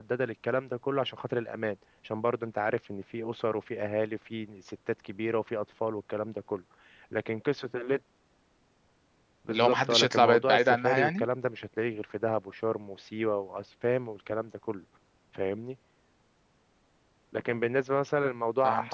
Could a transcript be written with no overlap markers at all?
No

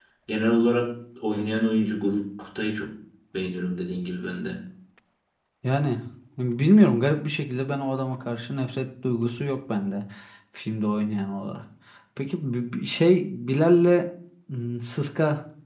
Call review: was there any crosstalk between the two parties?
No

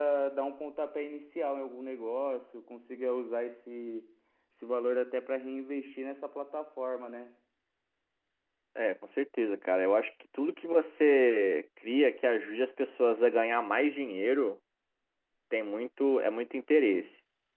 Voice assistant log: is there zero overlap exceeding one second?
Yes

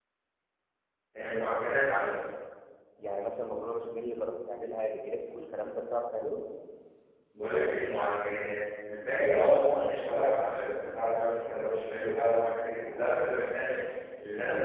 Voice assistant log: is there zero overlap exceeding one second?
Yes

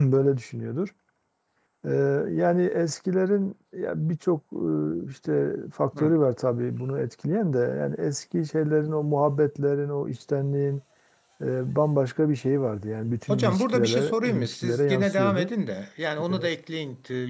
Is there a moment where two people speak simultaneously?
Yes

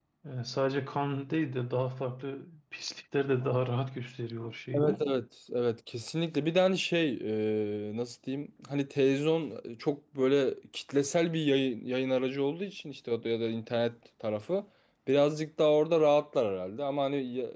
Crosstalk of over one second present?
No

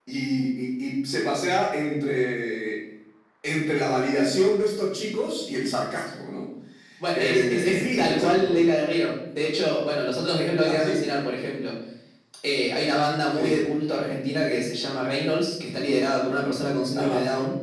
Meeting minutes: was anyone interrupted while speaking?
Yes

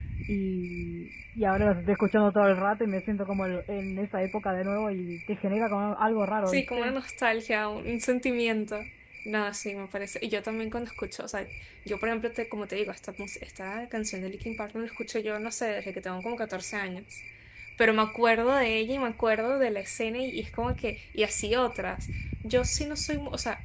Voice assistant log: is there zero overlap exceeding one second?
Yes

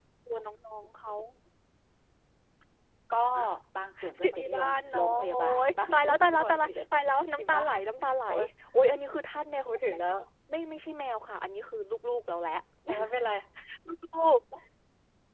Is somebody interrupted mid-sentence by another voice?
Yes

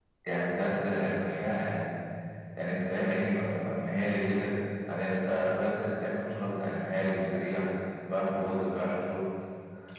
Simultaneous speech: No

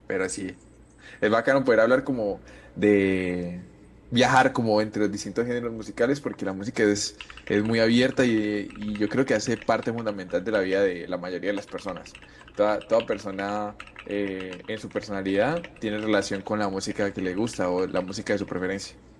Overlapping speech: No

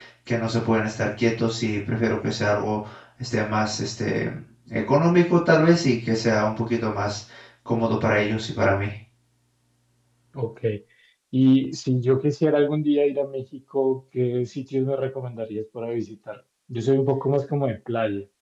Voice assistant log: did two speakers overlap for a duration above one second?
No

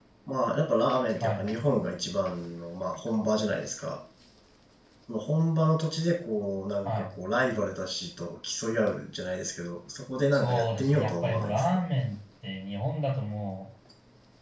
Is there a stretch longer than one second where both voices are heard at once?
Yes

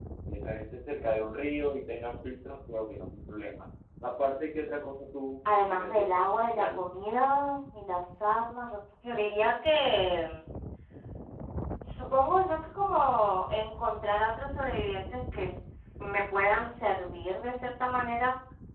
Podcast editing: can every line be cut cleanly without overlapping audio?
No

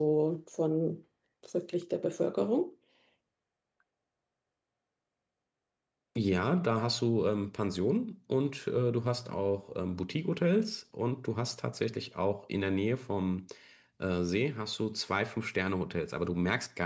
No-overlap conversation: Yes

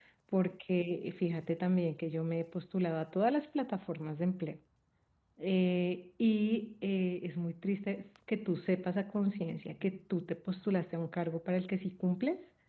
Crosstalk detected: No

